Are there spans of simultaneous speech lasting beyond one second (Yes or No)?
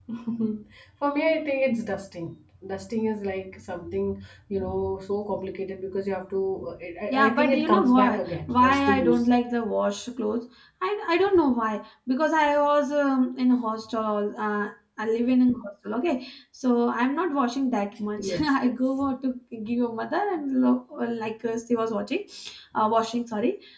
Yes